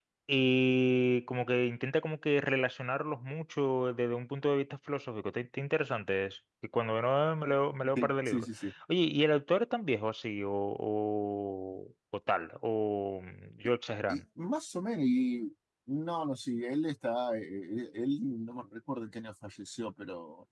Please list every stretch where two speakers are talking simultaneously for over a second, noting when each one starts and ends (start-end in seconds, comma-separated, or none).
none